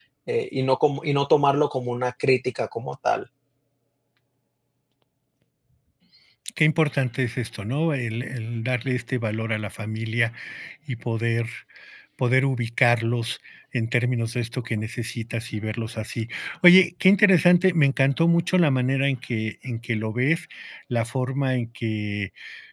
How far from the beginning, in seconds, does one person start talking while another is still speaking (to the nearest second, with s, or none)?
none